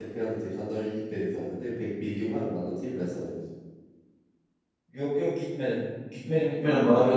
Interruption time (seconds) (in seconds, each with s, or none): none